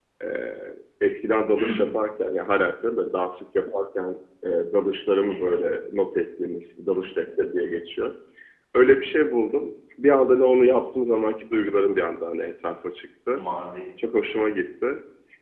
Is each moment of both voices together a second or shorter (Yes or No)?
Yes